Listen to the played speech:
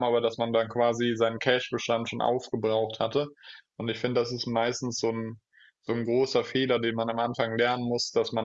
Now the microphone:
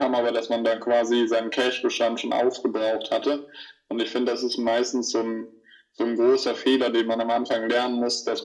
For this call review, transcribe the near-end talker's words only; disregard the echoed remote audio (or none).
none